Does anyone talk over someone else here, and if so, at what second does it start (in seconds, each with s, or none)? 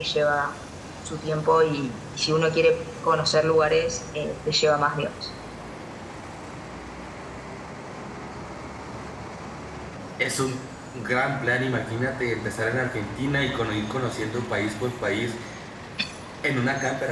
none